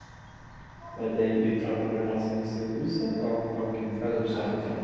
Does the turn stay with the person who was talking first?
No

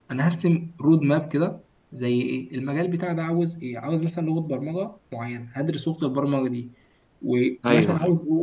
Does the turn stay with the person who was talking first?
Yes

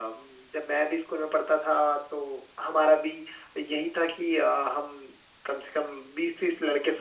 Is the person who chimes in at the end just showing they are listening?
Yes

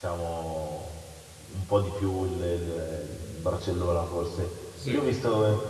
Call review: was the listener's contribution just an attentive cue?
Yes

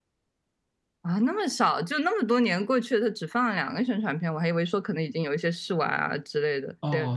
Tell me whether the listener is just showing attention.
No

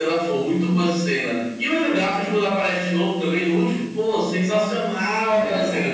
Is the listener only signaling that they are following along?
Yes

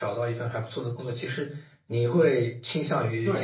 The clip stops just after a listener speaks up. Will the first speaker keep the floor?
Yes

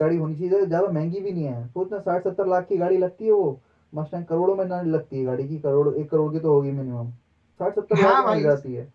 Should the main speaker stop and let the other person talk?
Yes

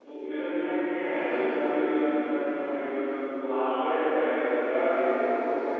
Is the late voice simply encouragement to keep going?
No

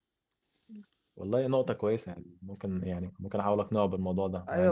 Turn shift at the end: Yes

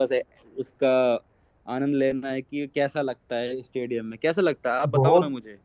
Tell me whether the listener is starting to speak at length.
Yes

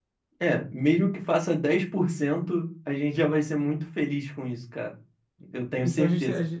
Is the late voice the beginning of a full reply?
Yes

